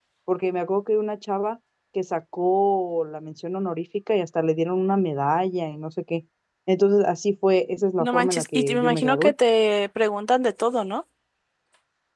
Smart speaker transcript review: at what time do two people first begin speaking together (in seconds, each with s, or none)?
8.0 s